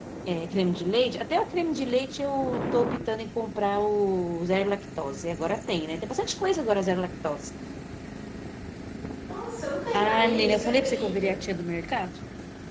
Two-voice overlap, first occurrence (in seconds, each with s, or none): 10.0 s